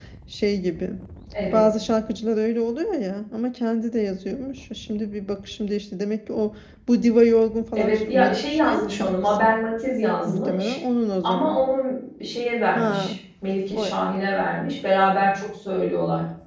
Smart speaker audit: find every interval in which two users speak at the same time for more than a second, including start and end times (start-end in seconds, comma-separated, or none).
7.7-9.6